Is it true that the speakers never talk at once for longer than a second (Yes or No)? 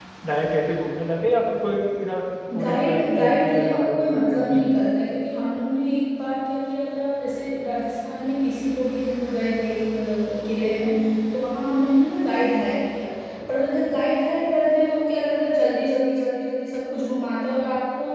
No